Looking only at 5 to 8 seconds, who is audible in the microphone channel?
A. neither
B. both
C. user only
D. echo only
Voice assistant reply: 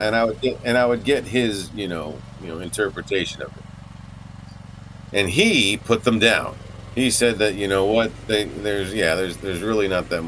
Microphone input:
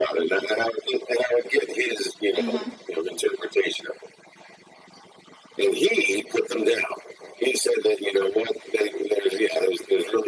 D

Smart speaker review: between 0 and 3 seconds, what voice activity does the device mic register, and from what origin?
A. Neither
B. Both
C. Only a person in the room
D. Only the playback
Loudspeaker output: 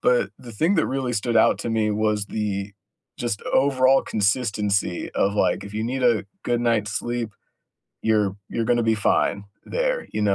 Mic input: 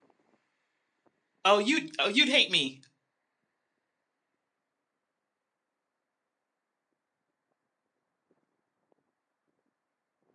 C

